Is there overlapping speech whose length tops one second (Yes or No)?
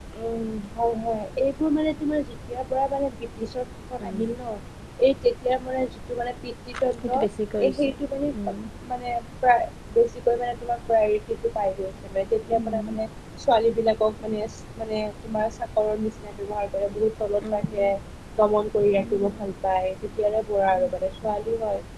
No